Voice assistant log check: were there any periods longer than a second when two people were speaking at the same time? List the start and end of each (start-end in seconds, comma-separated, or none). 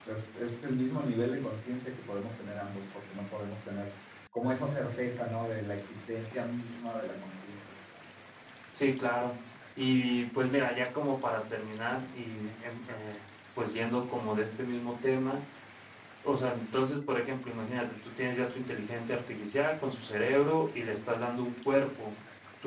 none